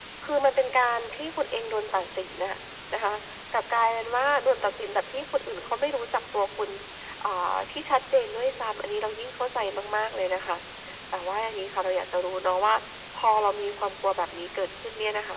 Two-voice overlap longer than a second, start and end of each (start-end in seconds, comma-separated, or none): none